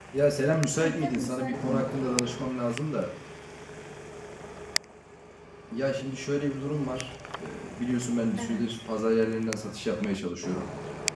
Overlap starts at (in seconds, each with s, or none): 0.8 s